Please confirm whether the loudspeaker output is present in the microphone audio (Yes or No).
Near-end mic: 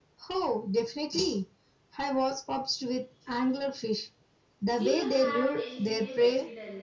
Yes